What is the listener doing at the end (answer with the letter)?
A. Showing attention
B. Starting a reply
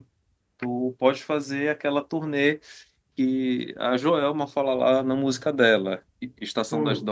A